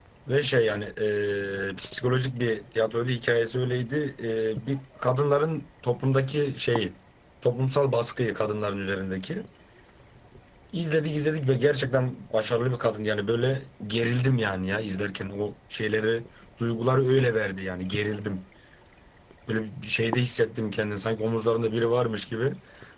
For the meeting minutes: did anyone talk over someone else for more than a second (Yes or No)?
No